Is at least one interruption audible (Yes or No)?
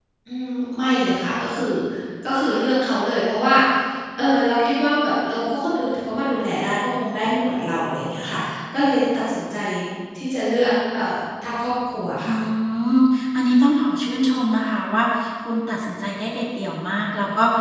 No